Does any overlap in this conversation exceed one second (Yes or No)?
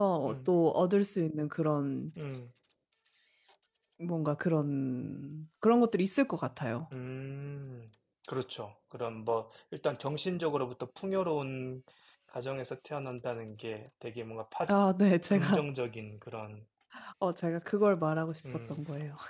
No